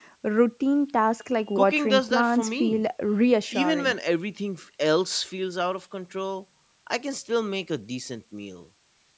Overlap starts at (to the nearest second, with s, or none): 2 s